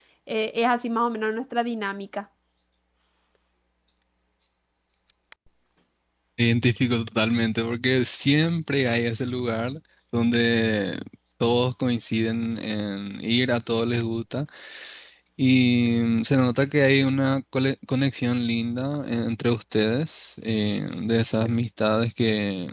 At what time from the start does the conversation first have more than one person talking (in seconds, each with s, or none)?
none